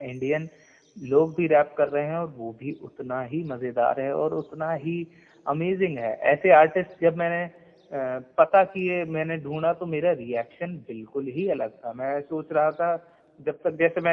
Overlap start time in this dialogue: none

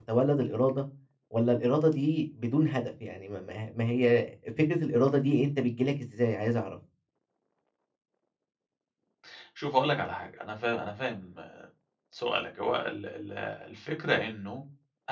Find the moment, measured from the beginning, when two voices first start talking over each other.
none

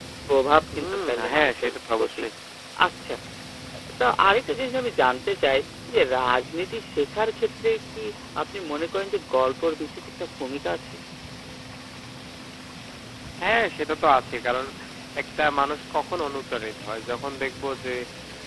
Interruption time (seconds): 0.8 s

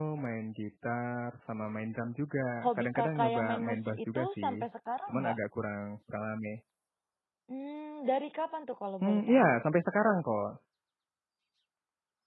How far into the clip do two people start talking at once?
2.8 s

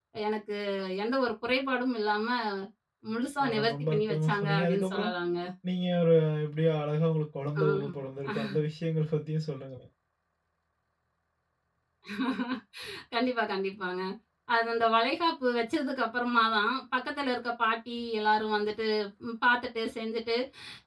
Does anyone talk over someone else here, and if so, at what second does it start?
3.4 s

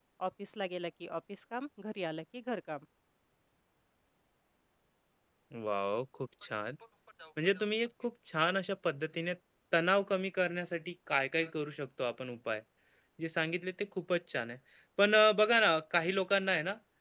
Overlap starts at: none

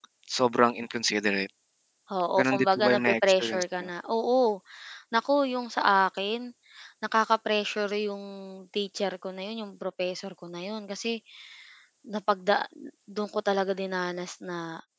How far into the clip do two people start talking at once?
2.4 s

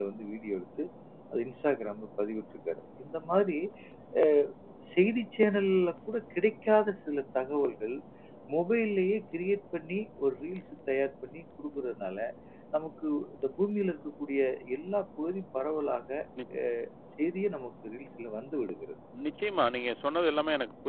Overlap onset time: none

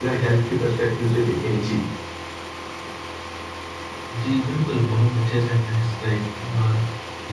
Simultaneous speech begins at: none

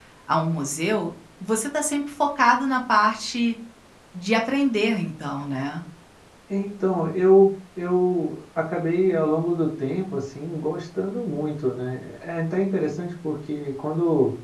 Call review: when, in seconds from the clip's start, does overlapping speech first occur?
none

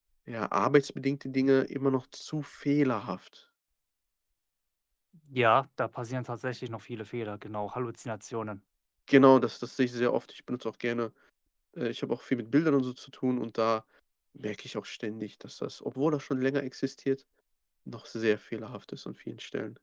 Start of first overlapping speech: none

